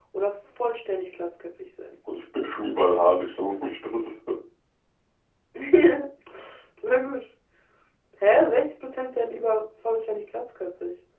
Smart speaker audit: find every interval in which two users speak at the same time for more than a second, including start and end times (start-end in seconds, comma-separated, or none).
none